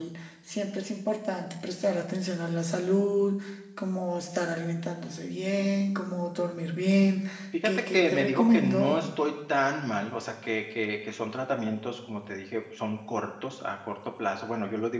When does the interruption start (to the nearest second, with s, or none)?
8 s